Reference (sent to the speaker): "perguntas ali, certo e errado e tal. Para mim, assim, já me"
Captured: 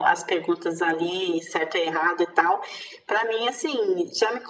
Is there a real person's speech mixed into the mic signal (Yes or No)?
No